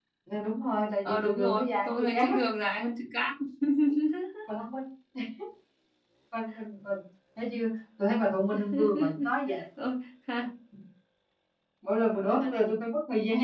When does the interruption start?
1.1 s

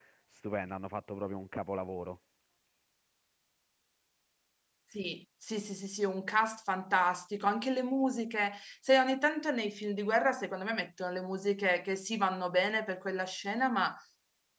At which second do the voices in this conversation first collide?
none

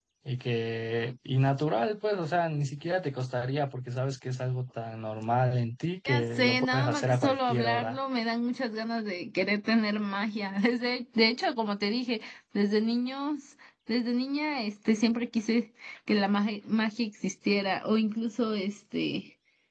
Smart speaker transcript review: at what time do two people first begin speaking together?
6.1 s

